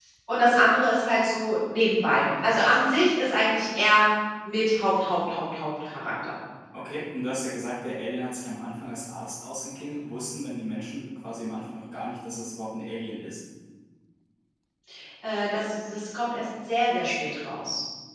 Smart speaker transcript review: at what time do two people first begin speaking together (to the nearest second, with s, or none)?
none